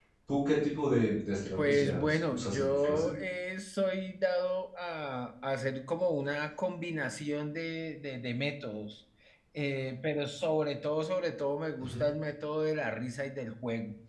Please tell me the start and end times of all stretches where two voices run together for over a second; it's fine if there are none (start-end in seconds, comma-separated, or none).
1.6-3.1